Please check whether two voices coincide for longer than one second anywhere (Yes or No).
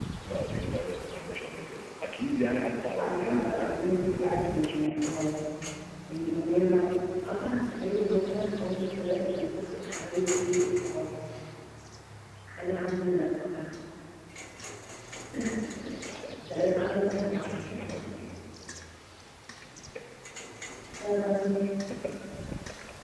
Yes